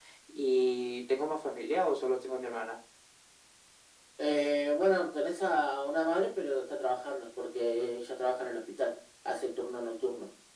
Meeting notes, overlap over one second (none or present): none